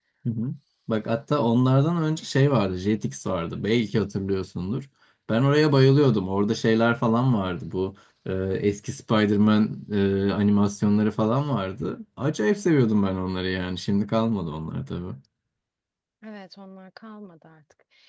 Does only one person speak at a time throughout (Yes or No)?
Yes